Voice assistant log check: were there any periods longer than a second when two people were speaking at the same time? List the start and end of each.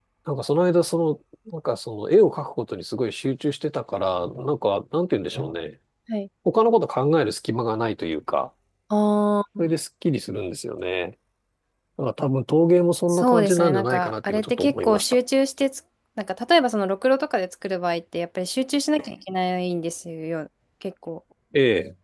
13.1-15.1

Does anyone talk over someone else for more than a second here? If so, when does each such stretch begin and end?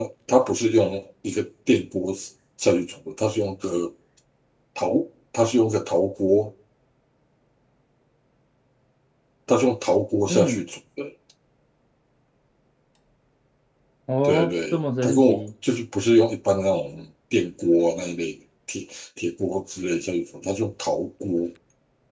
14.2-15.4

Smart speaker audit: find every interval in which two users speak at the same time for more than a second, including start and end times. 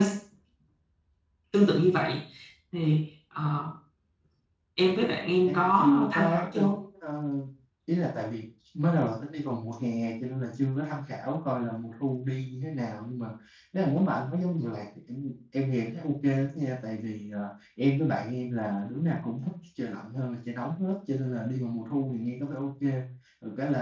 5.5-6.8

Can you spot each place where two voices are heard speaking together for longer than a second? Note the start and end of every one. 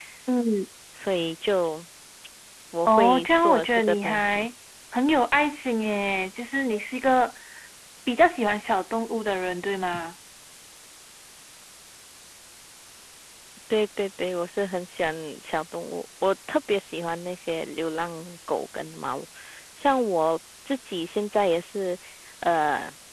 2.9-4.5

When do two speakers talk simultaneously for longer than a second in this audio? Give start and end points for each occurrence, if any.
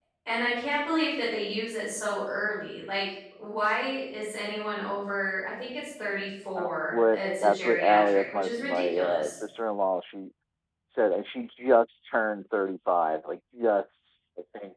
6.6-9.4

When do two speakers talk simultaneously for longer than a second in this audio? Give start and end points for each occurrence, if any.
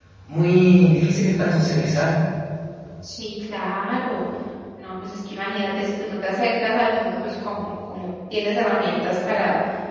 none

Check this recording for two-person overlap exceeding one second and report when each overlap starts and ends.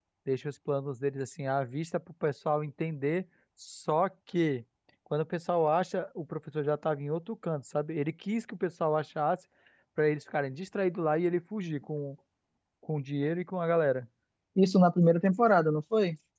none

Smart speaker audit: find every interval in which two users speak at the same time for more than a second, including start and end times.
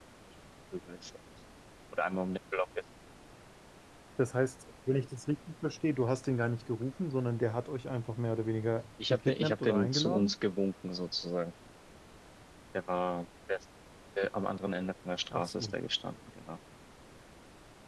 9.1-10.3

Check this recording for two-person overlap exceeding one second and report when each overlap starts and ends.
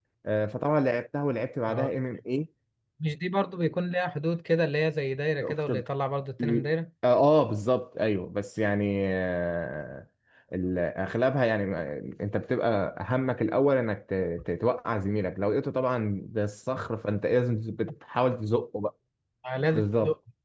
none

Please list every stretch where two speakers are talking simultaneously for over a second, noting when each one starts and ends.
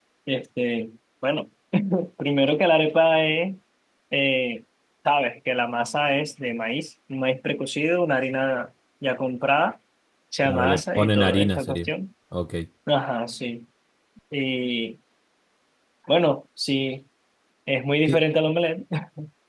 10.4-11.9

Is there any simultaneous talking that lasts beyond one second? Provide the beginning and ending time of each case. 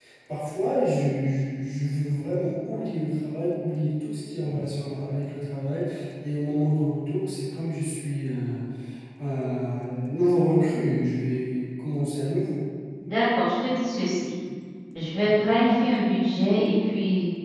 none

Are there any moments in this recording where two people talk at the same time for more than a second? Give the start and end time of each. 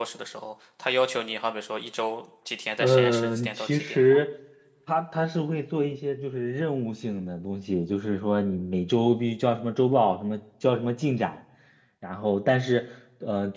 2.8-4.2

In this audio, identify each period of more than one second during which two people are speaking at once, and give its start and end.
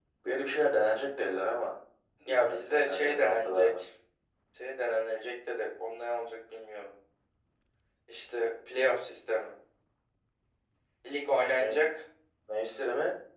2.3-3.8

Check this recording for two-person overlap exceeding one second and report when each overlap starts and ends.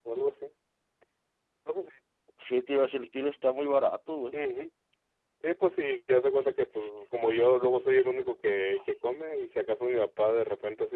none

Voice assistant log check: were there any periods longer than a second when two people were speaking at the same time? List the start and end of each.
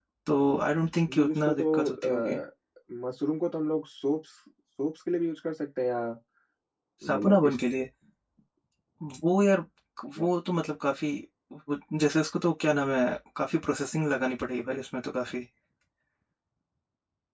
1.1-2.4

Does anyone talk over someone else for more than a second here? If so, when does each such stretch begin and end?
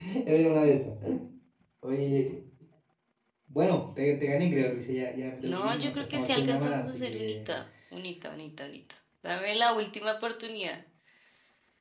5.4-7.5

